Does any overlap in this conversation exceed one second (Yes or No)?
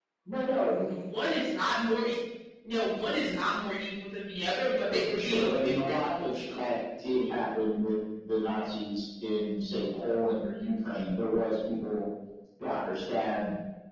Yes